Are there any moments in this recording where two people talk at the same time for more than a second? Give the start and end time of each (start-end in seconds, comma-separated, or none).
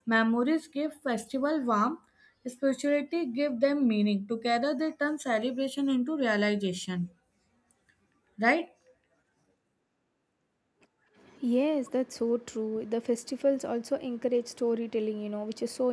none